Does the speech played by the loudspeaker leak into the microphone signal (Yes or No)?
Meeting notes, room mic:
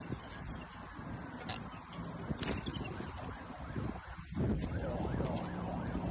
No